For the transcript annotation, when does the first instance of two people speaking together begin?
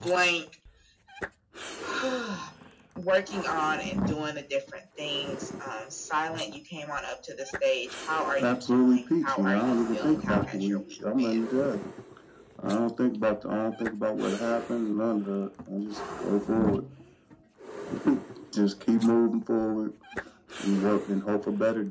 8.4 s

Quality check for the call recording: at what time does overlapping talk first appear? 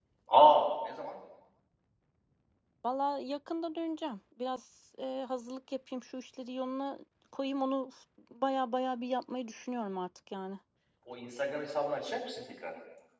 none

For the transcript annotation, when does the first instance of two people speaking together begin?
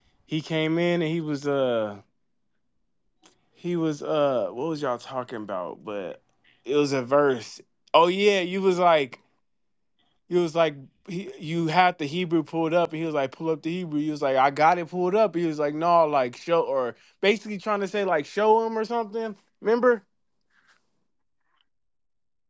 none

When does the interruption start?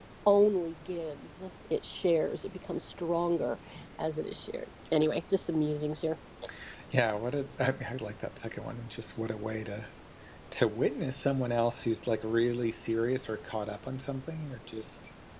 none

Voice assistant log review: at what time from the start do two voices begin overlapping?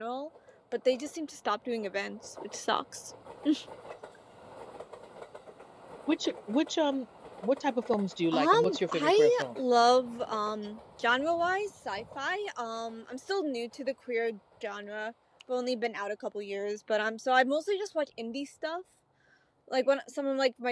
8.3 s

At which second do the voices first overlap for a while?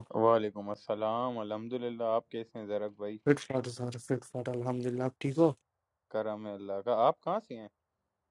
none

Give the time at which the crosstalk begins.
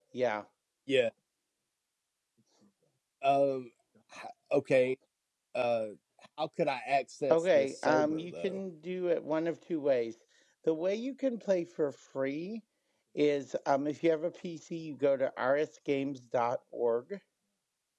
7.3 s

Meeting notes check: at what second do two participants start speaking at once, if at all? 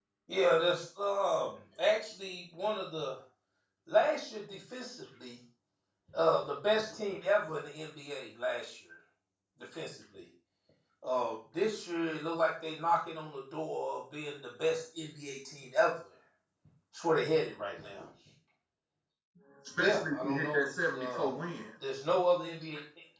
19.8 s

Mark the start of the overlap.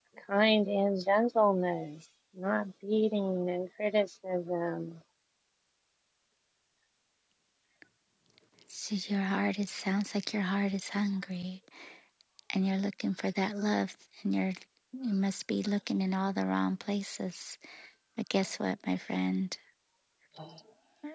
none

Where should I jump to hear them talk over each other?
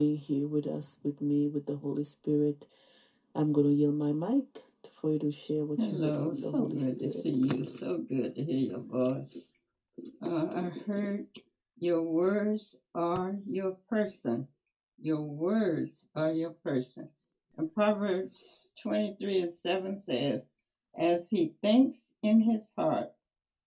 5.8 s

